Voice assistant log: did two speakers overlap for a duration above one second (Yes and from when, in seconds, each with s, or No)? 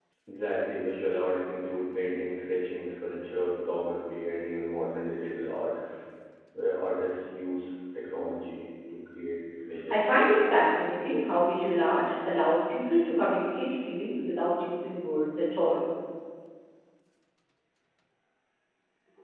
No